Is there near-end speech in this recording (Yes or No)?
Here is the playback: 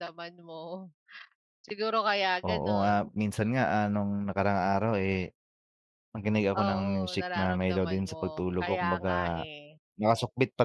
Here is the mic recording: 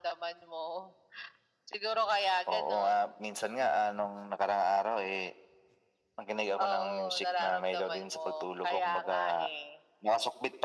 No